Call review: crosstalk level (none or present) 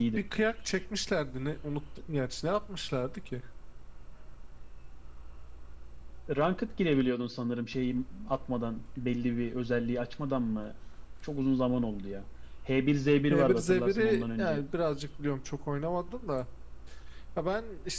present